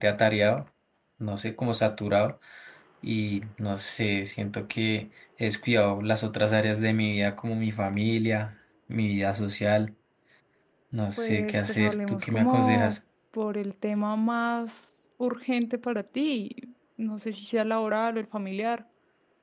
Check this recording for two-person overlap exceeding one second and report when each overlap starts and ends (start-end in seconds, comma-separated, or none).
11.2-12.9